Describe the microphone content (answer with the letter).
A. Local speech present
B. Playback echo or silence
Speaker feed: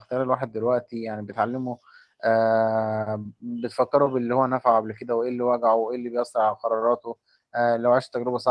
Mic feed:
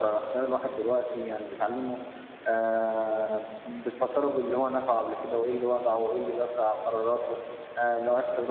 B